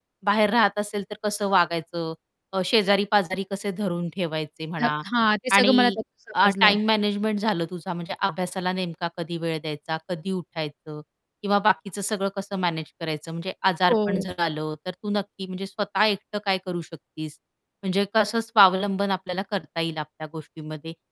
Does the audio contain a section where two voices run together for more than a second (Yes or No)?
No